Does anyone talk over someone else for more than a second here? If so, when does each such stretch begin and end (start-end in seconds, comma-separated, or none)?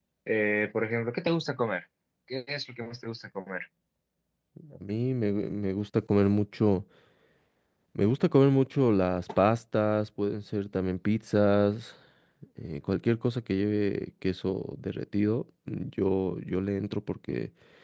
none